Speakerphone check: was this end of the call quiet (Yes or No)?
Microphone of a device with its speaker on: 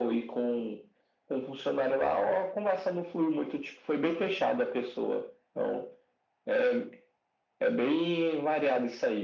Yes